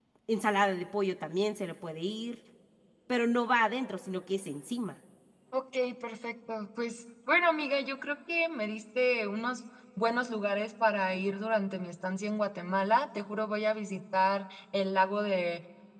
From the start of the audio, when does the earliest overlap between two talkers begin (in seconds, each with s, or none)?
none